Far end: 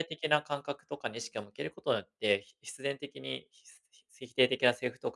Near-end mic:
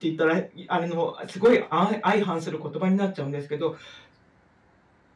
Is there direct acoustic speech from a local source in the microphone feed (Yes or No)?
Yes